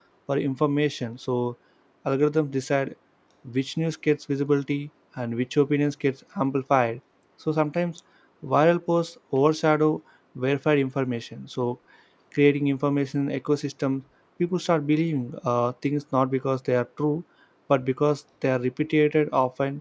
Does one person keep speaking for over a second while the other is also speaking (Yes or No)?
No